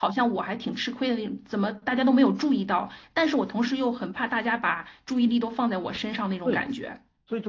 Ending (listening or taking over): taking over